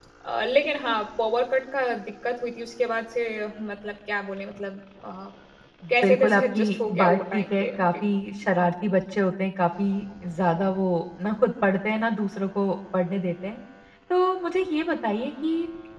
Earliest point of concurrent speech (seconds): 6.0 s

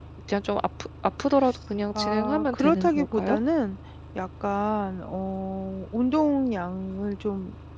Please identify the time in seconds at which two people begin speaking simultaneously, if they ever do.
1.9 s

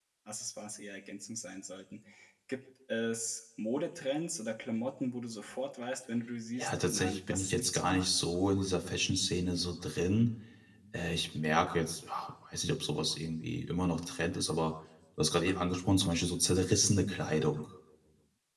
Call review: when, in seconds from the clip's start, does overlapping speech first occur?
6.6 s

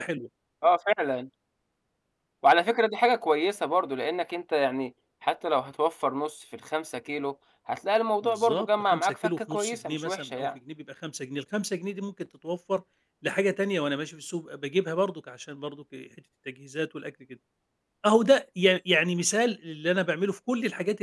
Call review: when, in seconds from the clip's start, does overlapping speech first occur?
8.2 s

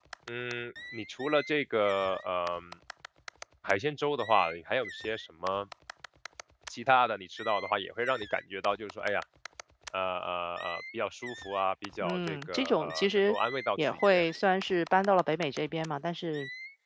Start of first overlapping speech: 12.0 s

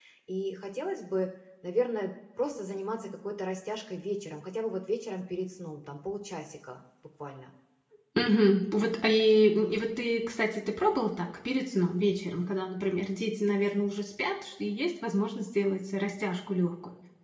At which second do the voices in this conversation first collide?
none

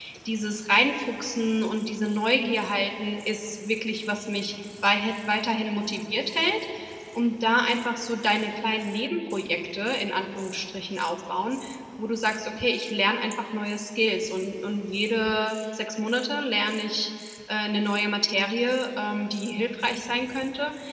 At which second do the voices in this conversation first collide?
none

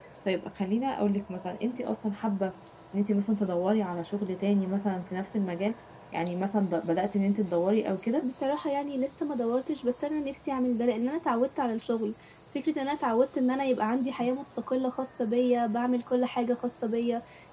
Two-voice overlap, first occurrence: none

